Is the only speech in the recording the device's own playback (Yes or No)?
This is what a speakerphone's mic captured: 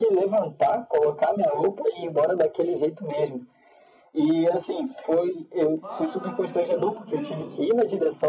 No